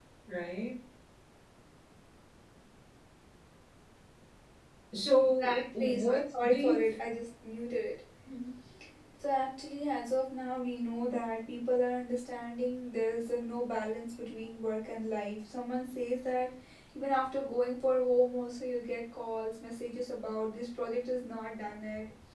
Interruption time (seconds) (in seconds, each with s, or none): 5.2 s